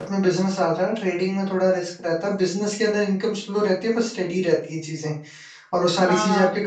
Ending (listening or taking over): listening